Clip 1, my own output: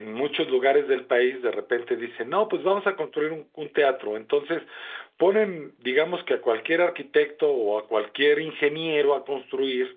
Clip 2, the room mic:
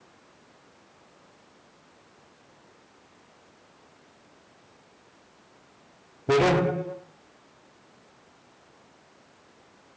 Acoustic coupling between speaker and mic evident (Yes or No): No